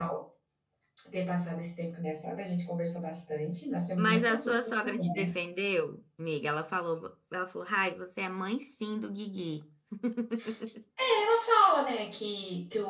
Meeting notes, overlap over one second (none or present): present